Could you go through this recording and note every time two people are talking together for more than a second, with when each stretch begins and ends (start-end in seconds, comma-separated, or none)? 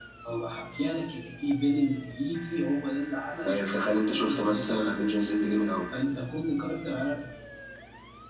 3.4-4.9